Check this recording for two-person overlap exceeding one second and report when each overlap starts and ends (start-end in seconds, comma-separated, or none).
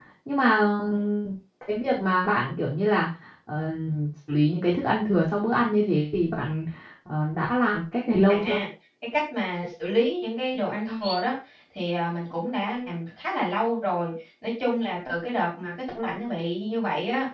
none